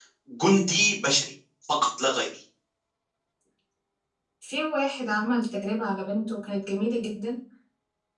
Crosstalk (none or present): none